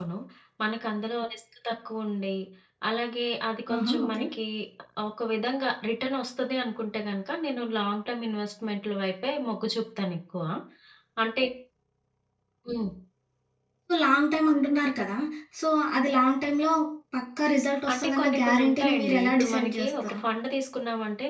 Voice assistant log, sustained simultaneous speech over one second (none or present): present